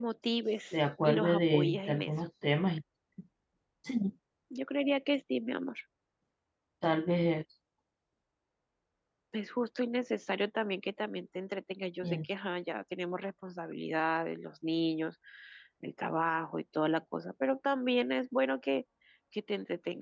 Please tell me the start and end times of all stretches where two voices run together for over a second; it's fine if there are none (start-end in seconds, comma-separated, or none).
0.7-2.1